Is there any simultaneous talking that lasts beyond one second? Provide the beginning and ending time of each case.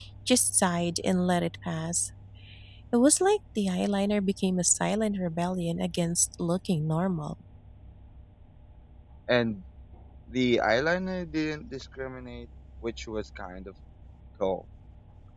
none

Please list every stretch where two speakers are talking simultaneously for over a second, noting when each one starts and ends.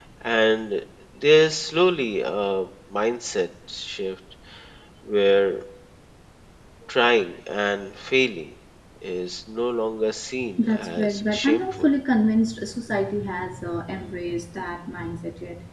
10.6-11.9

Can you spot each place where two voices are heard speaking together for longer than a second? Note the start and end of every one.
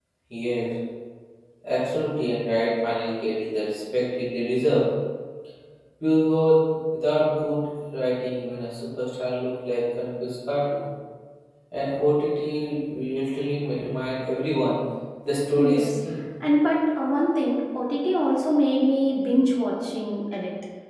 none

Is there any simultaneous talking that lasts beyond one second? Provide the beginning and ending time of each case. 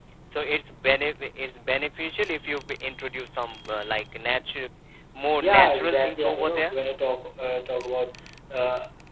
5.4-6.7

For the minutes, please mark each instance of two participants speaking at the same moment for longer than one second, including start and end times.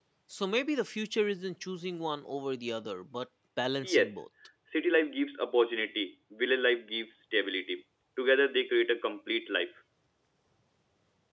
none

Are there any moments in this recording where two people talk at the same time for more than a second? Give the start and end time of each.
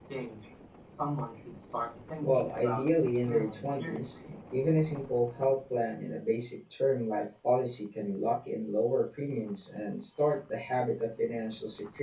2.2-4.2

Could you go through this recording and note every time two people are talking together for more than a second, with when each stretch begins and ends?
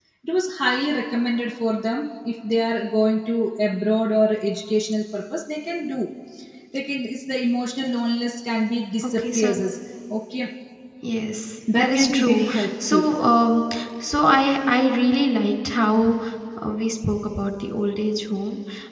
11.7-13.2

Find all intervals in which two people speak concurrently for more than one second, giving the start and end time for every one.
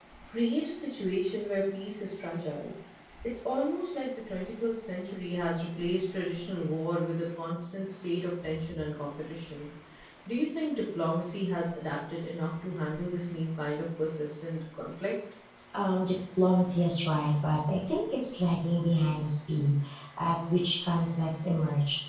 none

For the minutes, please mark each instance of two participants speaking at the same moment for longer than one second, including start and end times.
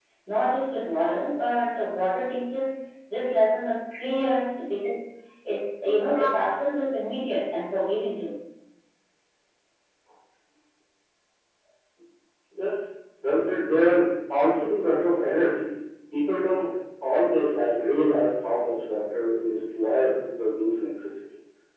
none

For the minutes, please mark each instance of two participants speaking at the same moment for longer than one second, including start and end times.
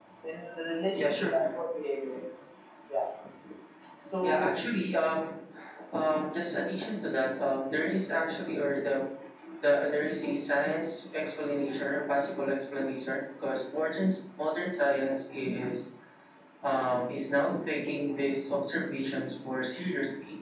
none

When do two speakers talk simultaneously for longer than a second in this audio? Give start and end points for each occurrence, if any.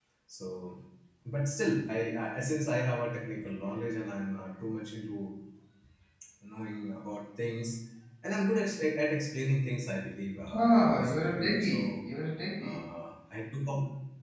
10.6-12.0

